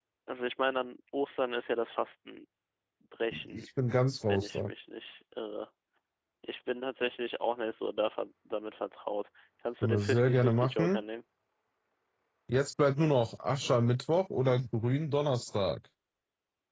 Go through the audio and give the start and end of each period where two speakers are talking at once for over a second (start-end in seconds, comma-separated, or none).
9.8-11.0